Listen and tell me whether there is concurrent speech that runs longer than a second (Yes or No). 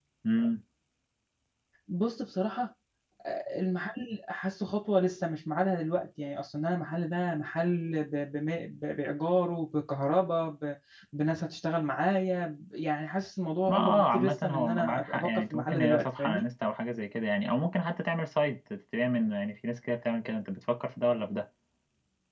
Yes